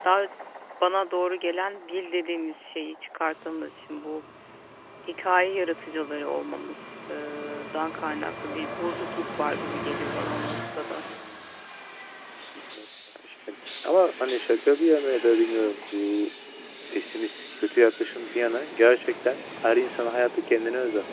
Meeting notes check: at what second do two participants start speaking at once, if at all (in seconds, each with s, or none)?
none